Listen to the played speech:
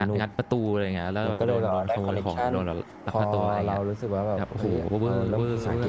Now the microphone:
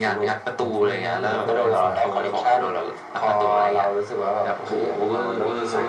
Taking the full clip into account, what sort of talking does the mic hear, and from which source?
both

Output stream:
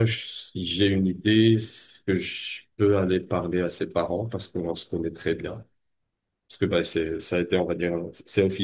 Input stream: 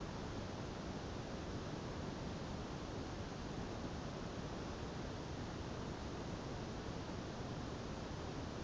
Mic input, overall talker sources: neither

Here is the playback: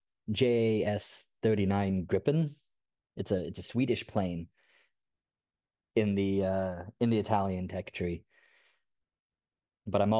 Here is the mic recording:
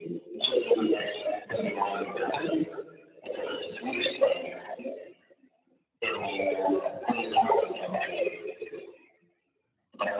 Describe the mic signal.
echo only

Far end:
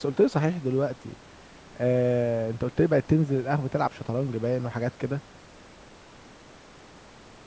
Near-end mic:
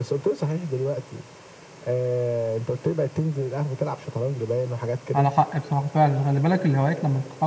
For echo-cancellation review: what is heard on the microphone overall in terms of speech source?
both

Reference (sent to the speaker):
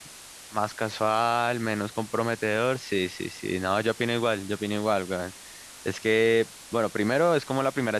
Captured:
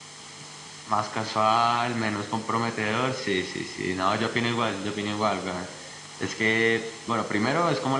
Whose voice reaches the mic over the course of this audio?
echo only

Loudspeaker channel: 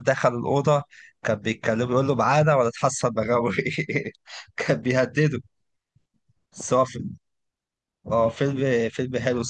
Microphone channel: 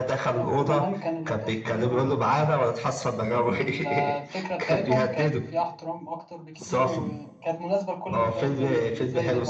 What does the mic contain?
both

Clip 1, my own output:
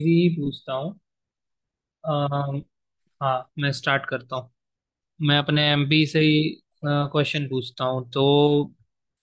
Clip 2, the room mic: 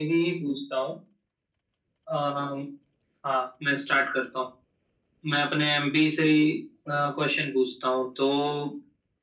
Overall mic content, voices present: echo only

